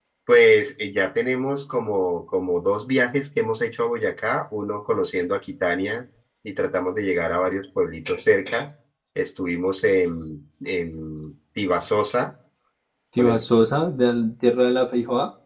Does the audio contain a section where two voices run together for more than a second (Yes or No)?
No